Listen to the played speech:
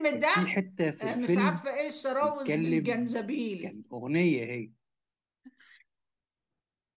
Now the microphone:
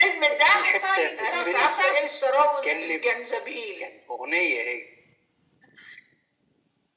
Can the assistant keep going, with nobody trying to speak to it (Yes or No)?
No